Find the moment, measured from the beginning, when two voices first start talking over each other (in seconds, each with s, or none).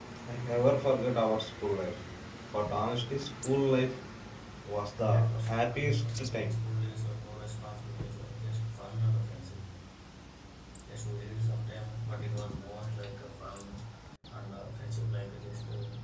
5.0 s